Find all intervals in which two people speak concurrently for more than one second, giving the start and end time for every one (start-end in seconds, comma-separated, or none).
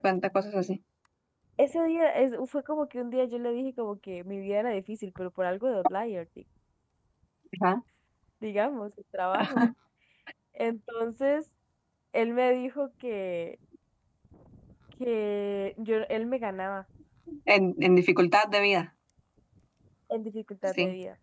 none